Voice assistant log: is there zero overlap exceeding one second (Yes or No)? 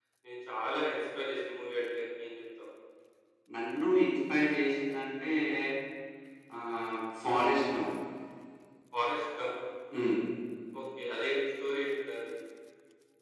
Yes